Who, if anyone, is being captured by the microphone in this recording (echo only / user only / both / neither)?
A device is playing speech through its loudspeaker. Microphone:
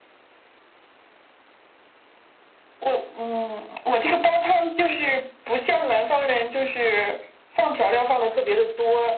echo only